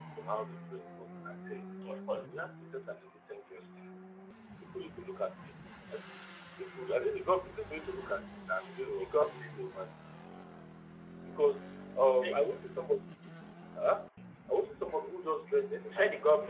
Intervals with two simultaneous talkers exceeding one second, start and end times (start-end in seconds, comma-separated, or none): none